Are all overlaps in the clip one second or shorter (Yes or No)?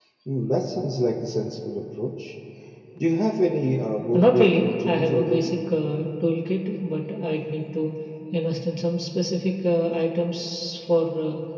No